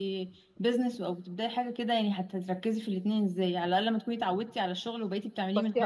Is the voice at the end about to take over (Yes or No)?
Yes